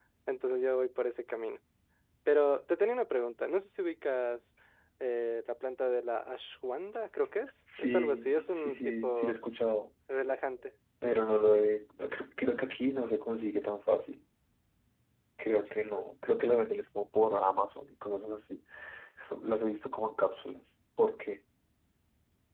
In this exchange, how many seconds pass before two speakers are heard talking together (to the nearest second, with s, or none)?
8 s